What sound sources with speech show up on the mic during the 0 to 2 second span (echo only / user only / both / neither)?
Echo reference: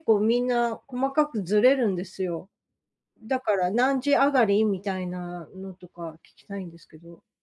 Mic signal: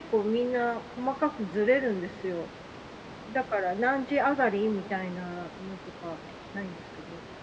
echo only